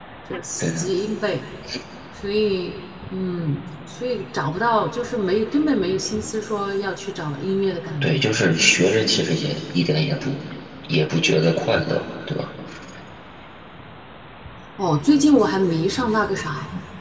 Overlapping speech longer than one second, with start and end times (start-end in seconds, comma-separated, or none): none